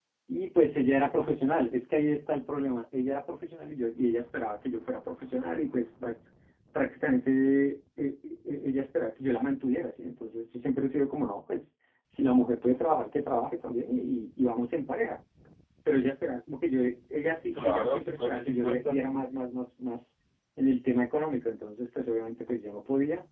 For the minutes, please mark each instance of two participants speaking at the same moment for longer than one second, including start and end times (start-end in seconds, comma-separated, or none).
17.5-19.0